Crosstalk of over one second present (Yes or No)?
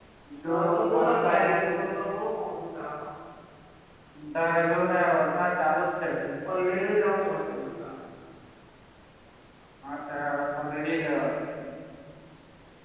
Yes